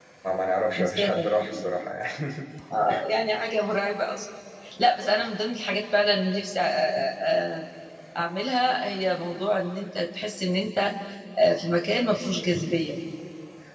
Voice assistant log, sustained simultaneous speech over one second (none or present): none